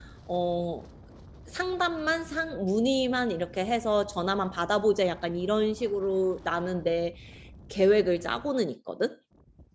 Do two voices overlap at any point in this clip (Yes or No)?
No